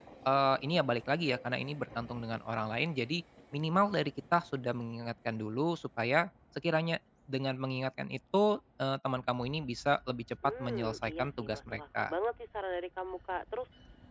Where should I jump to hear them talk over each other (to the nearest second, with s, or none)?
10 s